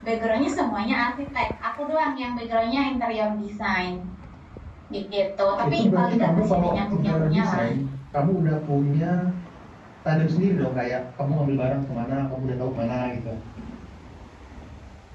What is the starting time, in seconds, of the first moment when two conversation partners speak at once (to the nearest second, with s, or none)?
6 s